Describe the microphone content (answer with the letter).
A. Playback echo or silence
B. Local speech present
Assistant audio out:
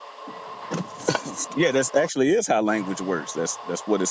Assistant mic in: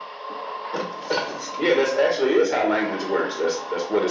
A